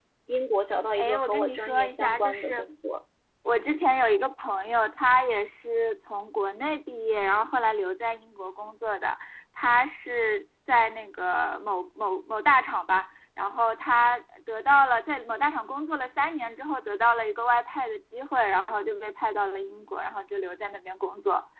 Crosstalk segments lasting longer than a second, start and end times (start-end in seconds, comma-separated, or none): 1.0-2.6